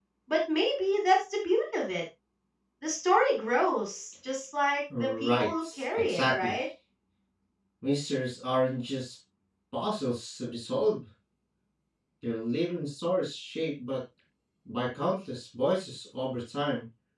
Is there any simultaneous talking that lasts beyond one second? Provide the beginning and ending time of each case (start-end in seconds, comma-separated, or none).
5.0-6.5